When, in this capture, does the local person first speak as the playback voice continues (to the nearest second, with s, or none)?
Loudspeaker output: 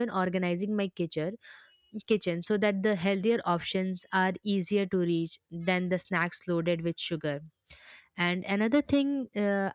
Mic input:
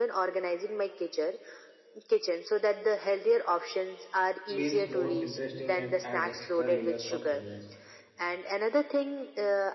4 s